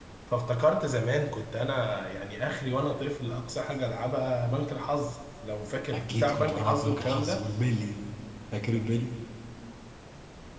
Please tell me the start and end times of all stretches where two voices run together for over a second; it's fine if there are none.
5.9-7.5

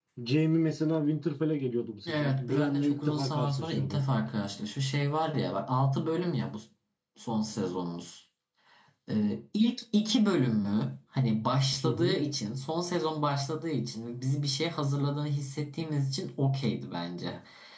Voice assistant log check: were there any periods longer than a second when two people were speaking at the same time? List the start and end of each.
2.1-4.0

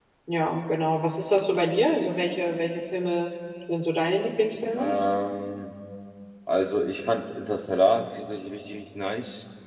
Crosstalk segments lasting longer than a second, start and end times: none

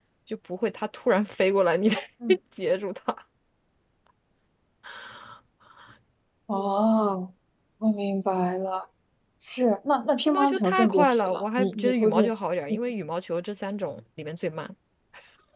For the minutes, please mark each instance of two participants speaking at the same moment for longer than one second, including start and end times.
10.2-12.3

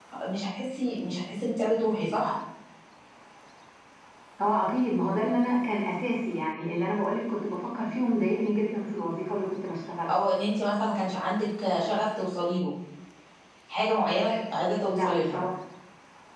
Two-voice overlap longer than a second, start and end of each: none

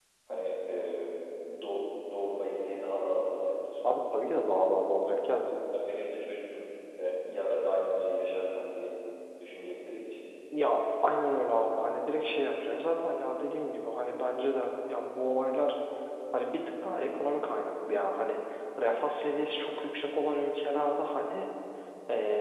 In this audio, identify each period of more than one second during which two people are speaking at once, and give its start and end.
none

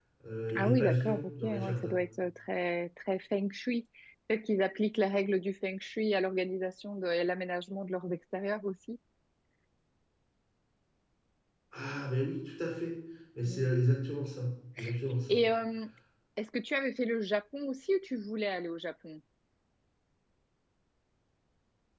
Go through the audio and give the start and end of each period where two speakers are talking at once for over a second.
0.6-2.0

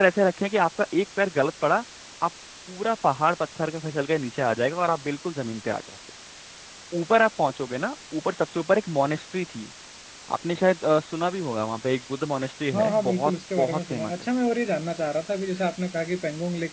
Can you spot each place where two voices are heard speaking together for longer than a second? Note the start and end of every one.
12.7-14.1

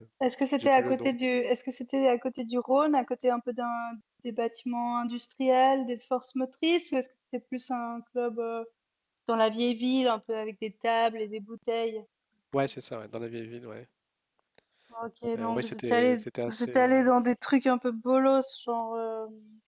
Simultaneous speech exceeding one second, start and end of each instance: 15.3-16.9

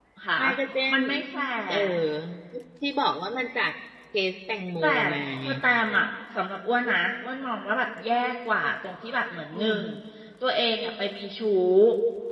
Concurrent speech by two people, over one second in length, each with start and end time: none

